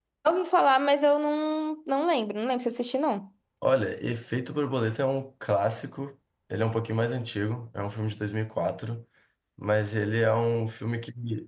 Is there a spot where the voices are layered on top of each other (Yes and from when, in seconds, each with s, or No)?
No